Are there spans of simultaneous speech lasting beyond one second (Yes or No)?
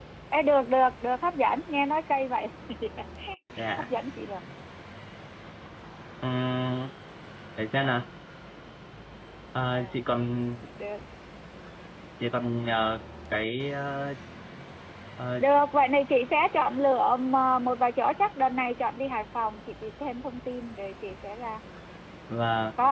No